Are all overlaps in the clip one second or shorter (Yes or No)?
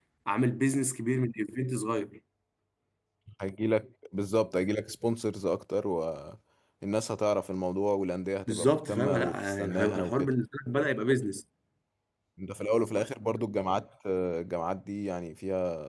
No